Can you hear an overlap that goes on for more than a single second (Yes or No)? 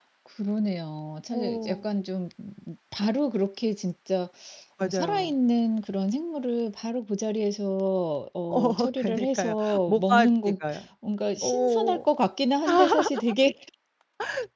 Yes